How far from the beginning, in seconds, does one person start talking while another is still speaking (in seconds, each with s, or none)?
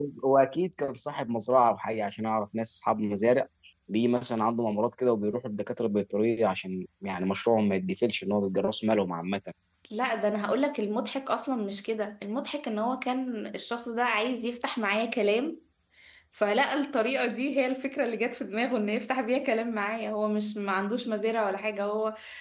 none